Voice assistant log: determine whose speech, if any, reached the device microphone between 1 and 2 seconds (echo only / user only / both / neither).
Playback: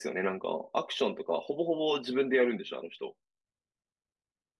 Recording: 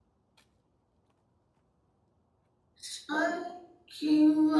neither